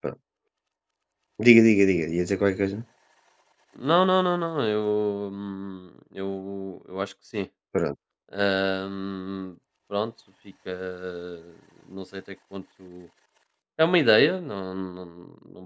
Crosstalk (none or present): none